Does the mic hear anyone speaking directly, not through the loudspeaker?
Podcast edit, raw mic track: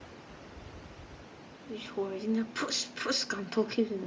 Yes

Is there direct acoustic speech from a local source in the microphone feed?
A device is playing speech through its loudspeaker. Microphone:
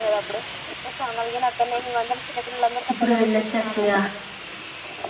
Yes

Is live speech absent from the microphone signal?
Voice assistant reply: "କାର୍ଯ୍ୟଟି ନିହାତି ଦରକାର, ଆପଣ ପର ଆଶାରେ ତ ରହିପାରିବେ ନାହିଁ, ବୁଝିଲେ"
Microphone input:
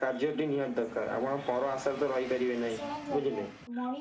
No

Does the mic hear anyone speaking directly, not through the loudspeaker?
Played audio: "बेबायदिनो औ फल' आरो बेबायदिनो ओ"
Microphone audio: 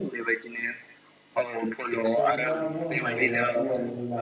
Yes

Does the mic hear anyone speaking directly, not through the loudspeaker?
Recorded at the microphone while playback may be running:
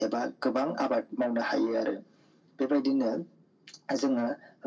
No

